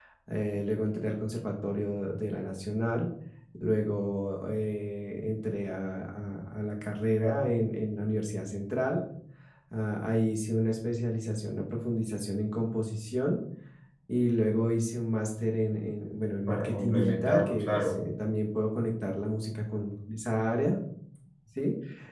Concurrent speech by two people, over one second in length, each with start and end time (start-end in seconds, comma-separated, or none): 16.5-18.0